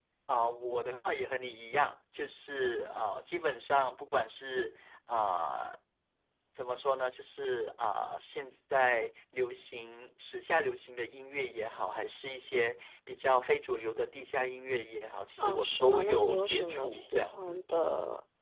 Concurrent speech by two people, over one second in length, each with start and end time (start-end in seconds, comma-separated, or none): 15.4-17.6